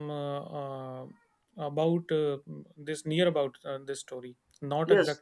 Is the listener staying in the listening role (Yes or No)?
No